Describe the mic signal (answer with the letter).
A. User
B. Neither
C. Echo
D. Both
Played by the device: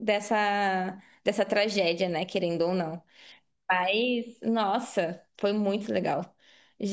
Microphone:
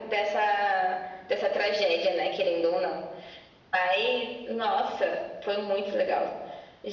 C